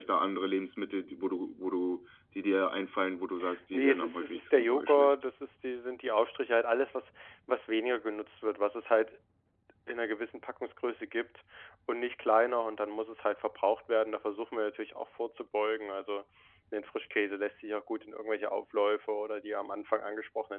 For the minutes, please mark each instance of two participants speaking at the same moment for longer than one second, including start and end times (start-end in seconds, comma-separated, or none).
3.7-5.2